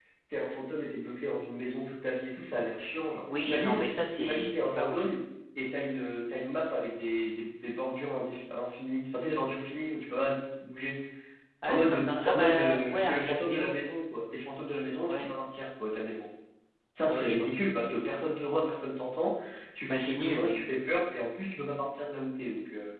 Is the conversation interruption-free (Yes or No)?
No